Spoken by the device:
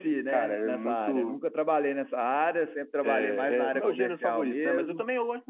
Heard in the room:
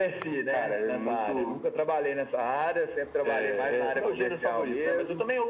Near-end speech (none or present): none